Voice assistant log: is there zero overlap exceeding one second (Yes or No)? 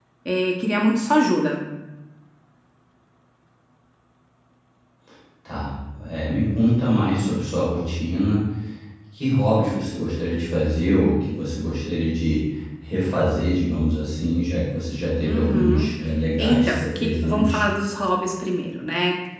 No